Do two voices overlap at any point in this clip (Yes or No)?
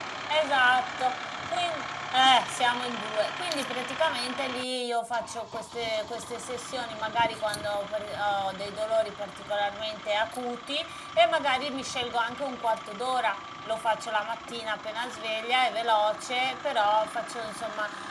No